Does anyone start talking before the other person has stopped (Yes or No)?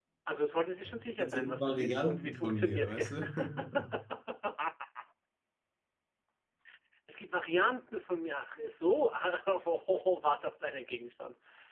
Yes